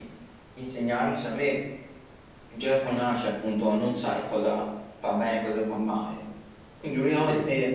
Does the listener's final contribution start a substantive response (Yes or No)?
No